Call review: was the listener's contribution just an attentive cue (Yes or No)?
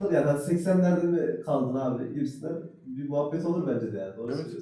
No